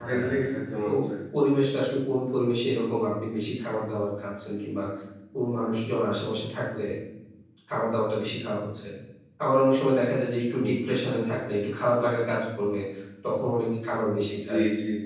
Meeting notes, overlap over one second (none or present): none